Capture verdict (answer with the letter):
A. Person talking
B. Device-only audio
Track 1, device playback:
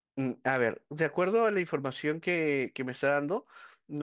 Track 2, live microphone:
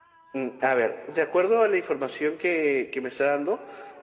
B